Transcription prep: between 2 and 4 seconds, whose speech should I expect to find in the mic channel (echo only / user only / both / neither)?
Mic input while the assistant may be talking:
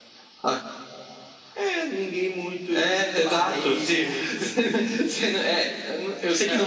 echo only